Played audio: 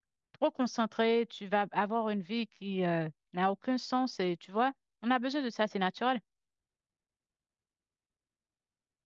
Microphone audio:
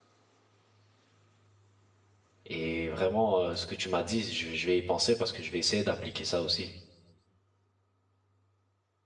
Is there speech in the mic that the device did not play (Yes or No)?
Yes